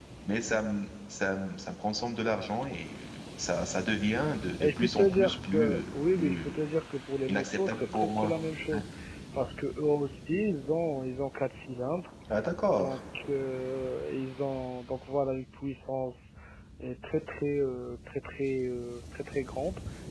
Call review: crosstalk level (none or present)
present